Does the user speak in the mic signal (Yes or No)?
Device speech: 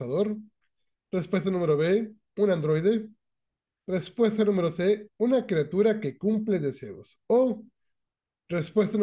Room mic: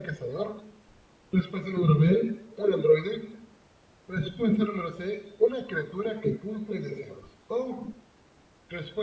No